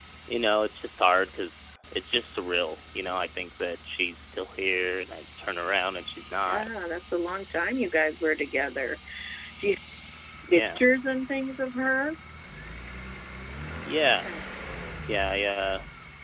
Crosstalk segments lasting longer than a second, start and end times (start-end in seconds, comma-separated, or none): none